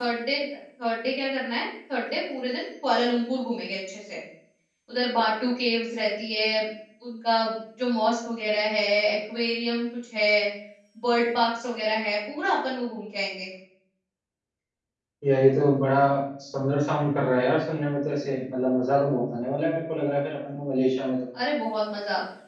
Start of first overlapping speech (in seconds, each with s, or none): none